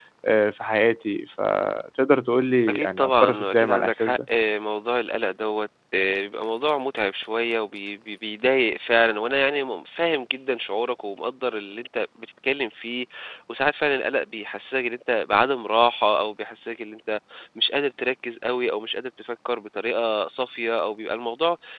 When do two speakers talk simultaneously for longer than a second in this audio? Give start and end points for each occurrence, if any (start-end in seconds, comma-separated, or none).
2.7-4.2